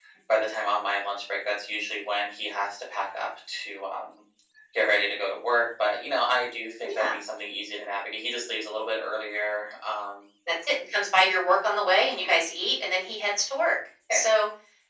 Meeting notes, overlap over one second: none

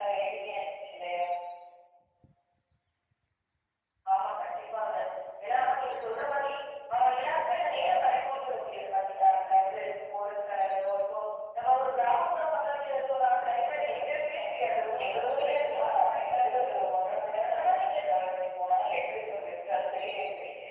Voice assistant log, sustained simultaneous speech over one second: present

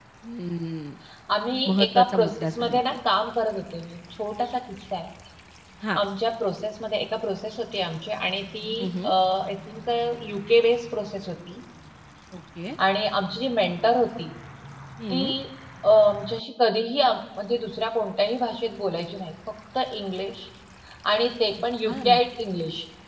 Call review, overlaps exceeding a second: present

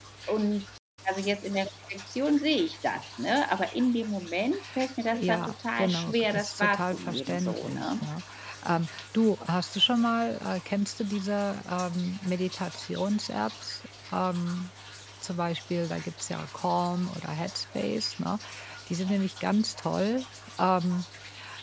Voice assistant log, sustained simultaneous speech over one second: present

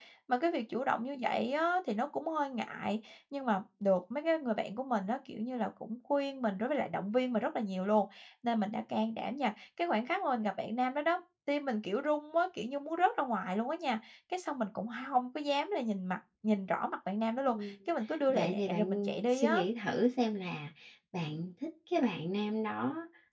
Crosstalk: present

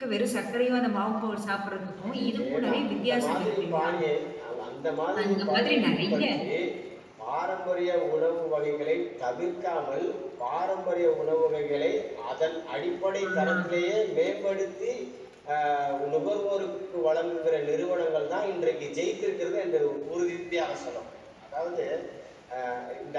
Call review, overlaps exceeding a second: present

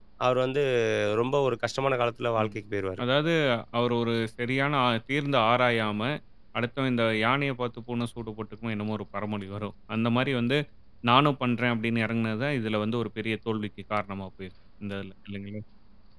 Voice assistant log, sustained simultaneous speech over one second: none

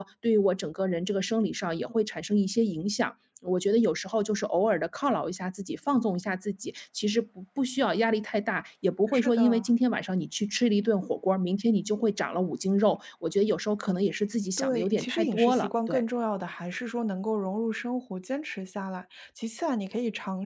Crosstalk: present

